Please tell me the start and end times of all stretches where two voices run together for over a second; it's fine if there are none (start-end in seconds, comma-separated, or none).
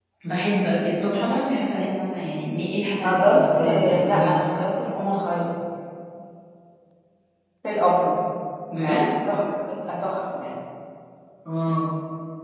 3.0-4.4